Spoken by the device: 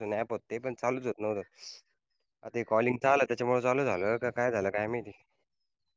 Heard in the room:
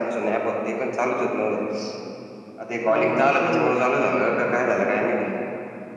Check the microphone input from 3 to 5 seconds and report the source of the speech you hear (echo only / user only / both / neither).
both